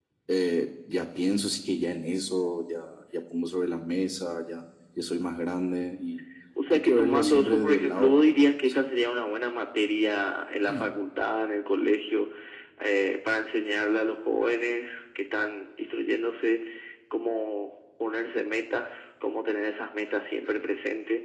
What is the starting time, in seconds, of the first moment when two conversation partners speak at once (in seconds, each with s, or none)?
6.7 s